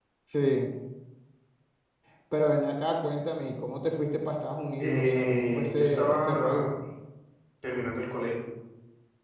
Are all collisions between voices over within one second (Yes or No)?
No